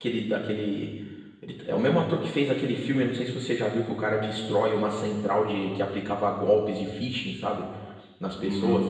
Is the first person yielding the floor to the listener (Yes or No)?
No